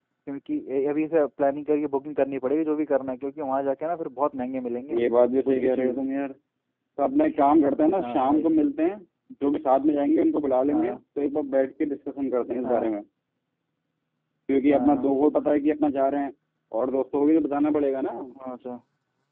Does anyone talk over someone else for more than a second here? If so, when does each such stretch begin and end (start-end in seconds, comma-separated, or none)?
none